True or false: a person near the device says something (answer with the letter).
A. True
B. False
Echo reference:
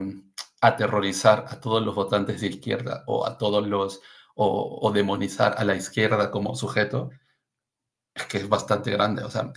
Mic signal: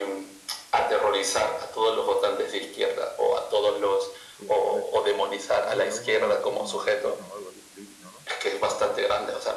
A